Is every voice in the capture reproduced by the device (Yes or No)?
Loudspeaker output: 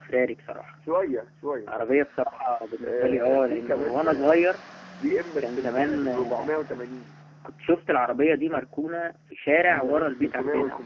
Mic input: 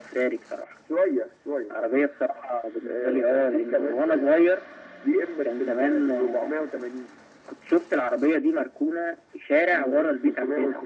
Yes